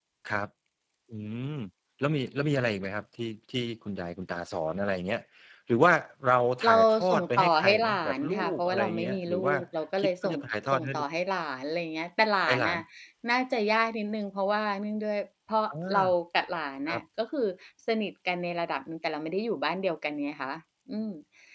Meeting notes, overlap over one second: present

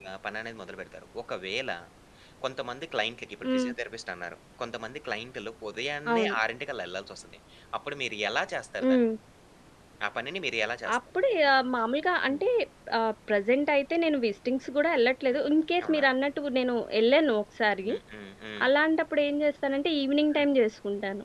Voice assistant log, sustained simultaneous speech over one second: none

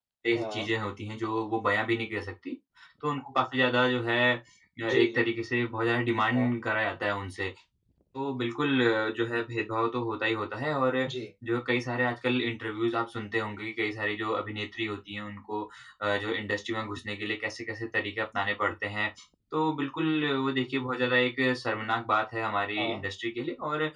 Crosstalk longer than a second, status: none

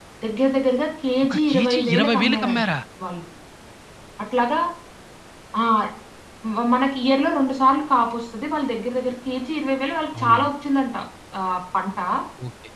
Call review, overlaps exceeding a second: present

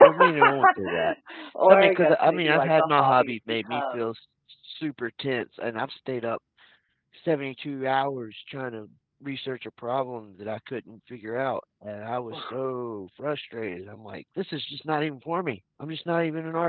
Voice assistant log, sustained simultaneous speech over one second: present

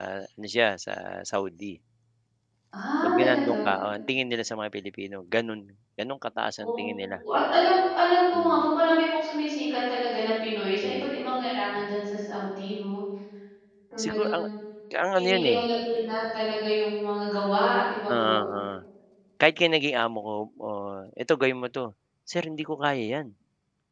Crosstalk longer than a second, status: none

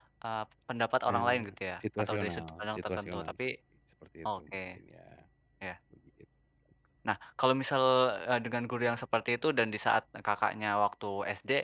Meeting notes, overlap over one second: present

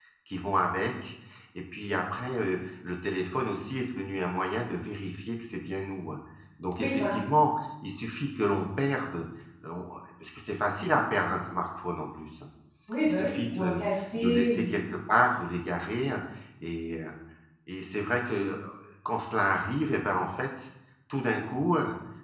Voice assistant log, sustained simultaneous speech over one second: present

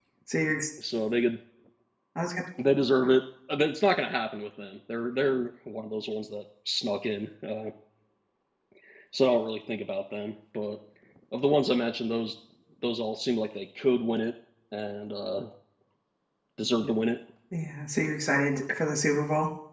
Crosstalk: none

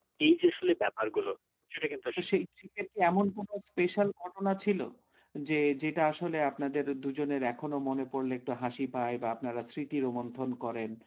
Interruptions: none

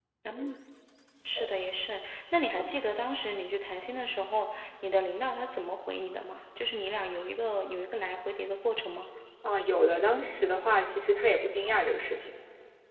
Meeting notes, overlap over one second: none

